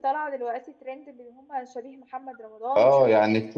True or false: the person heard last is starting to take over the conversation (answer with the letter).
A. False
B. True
B